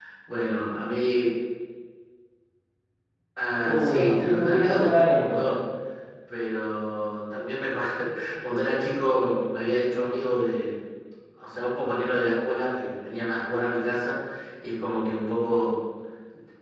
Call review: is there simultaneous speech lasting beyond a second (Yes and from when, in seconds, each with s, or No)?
Yes, from 3.6 s